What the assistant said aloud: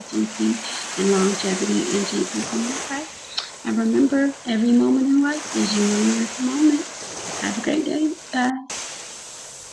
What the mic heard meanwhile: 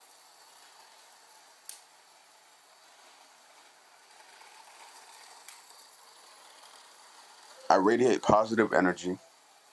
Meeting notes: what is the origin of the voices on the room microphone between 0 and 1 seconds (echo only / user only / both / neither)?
neither